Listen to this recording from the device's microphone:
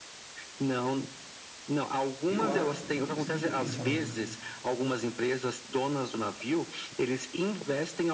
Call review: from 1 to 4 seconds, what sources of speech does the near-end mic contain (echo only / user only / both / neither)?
both